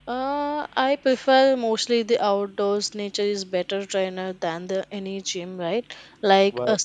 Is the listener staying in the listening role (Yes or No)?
Yes